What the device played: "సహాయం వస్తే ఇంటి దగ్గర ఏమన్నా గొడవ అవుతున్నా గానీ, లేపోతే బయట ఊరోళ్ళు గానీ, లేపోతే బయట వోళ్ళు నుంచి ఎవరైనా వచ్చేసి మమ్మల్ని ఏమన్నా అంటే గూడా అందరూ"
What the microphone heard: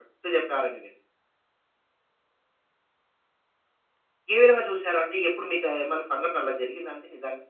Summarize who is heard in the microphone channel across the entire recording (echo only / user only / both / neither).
user only